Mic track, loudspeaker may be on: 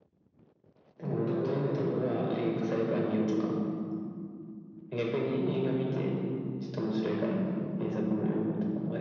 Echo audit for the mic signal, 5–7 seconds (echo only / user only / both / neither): echo only